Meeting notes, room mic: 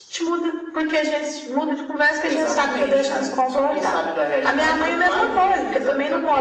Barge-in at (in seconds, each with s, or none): none